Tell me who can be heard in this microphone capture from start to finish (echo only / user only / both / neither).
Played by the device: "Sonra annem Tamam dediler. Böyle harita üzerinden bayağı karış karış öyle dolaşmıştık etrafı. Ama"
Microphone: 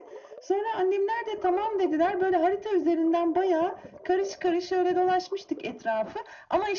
echo only